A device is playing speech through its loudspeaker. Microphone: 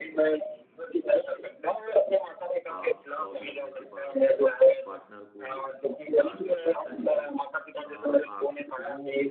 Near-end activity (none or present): present